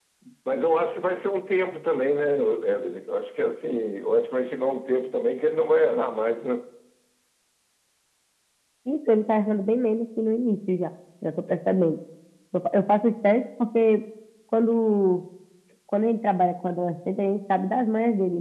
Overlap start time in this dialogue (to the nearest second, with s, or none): none